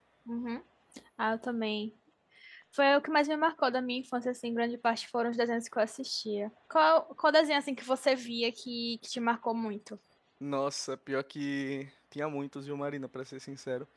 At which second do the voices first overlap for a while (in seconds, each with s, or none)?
none